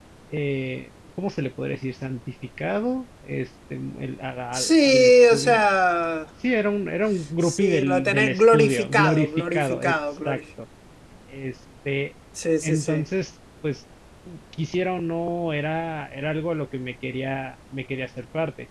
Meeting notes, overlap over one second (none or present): present